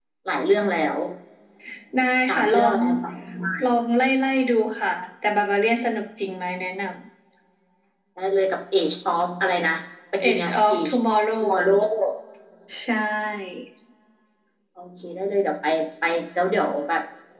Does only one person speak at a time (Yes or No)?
No